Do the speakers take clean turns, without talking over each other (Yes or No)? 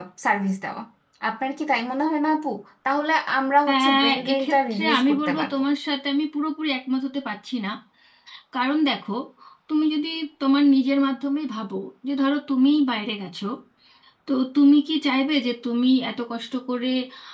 No